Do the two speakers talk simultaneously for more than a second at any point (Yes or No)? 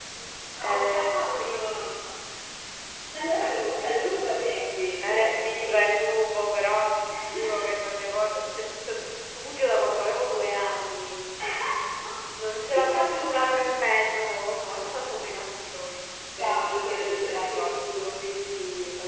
Yes